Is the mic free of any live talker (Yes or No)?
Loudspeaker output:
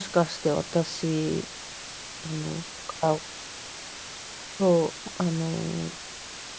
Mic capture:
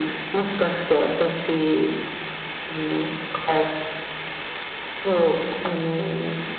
Yes